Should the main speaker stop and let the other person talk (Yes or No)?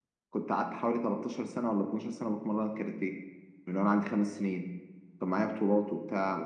No